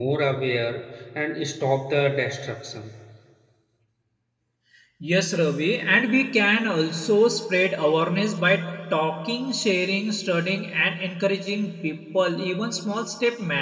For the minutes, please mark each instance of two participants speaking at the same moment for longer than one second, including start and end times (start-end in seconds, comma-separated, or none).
none